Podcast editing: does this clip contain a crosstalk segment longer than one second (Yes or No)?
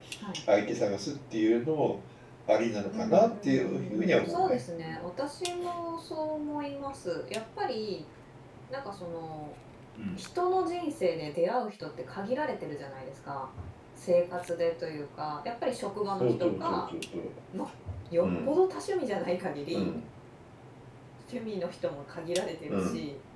Yes